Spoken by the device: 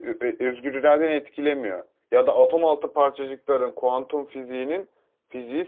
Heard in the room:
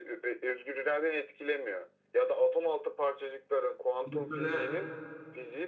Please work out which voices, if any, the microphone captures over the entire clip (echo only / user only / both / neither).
both